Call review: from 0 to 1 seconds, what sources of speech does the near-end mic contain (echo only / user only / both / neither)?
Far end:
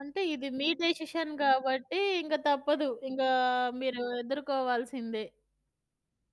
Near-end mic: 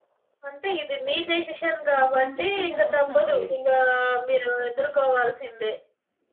echo only